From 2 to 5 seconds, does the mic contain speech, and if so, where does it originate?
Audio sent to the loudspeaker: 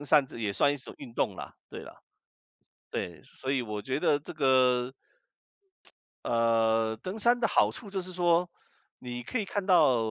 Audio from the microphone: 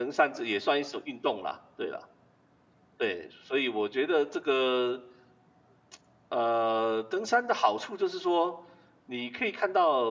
echo only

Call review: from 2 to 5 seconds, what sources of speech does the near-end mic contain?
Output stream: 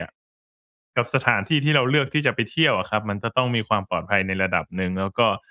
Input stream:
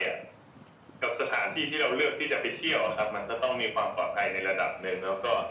echo only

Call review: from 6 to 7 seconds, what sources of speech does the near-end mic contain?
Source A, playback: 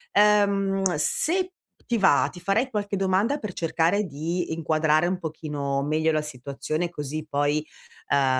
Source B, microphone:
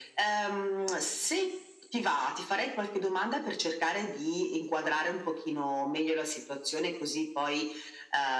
echo only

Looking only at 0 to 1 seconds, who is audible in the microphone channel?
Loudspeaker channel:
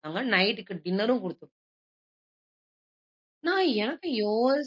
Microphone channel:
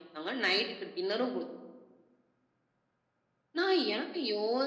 echo only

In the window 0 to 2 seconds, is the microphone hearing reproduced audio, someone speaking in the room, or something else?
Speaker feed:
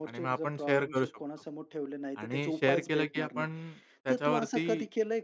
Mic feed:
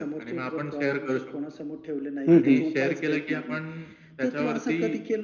echo only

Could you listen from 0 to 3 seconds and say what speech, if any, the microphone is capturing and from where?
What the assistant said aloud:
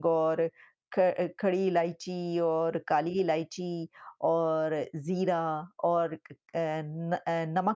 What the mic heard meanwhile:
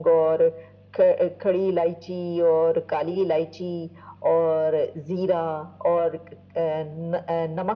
echo only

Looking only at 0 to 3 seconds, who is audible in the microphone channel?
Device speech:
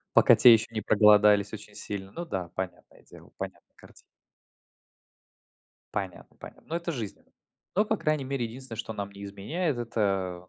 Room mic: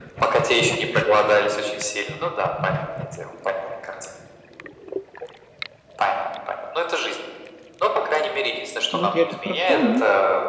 echo only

